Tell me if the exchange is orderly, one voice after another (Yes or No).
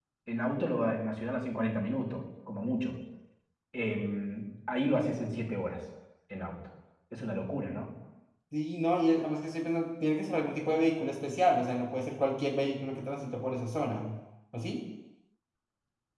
Yes